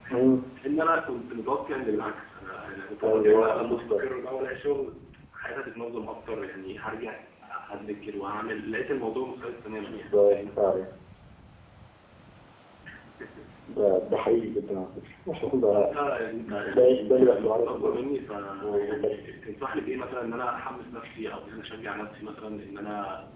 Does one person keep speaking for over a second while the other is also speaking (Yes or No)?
Yes